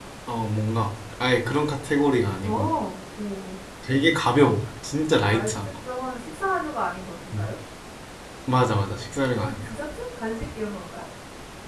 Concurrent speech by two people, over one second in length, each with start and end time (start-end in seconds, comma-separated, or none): none